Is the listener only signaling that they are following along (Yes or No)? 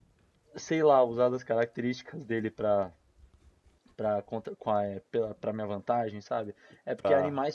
Yes